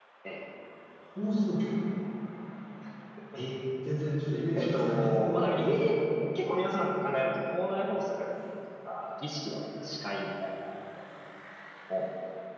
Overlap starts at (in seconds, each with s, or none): 4.5 s